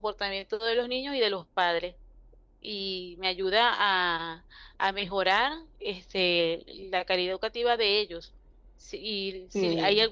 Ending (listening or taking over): listening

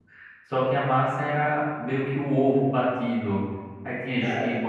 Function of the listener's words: listening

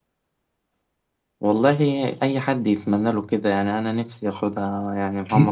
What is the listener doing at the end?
taking over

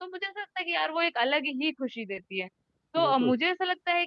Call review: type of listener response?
listening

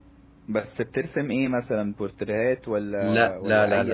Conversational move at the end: taking over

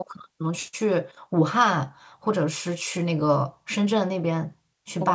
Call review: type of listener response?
taking over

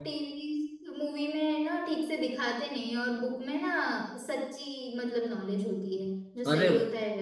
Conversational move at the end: taking over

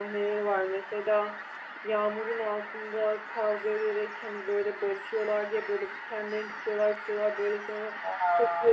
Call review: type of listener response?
listening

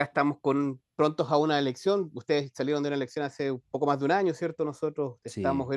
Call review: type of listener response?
listening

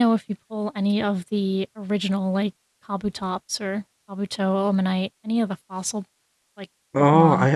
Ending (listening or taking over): taking over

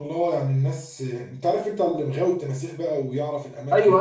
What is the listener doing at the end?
taking over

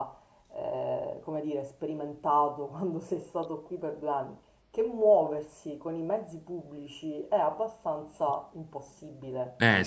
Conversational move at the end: listening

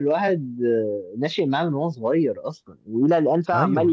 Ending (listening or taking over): listening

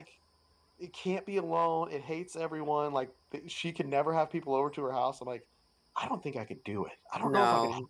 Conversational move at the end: listening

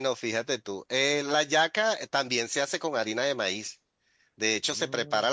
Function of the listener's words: listening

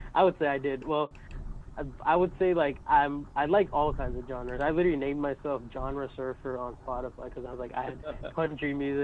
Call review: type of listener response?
listening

